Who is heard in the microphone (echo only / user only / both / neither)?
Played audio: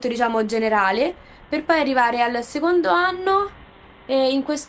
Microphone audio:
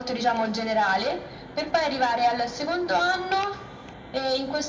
echo only